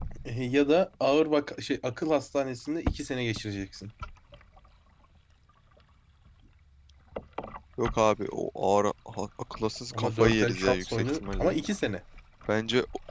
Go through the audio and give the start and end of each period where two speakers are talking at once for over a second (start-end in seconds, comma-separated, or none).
9.9-11.6